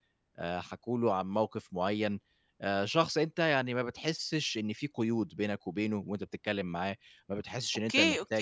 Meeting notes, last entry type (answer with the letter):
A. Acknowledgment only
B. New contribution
B